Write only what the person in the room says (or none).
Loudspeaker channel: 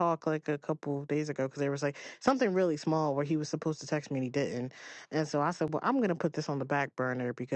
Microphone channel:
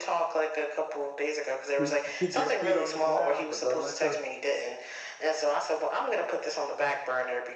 Keep keep your feet on the ground, but don't let your